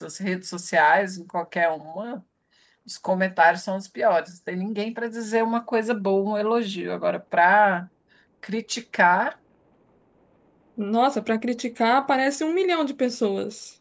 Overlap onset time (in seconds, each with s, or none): none